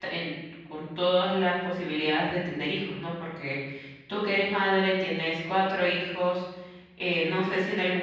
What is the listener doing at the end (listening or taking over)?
listening